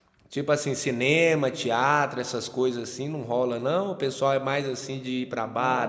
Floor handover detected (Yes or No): Yes